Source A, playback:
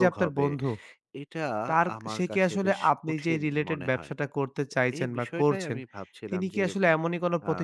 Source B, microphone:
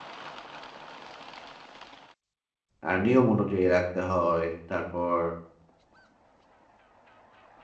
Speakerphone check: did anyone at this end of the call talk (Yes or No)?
Yes